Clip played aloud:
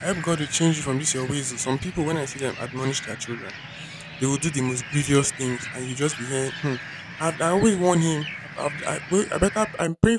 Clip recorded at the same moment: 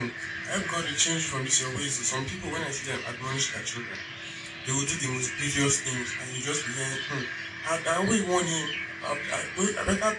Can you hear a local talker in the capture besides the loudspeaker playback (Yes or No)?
No